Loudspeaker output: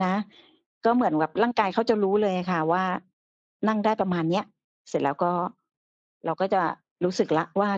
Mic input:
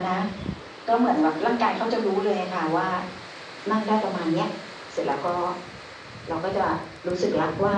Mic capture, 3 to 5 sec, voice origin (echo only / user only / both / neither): echo only